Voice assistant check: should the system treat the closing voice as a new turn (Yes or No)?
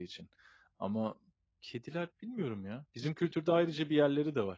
No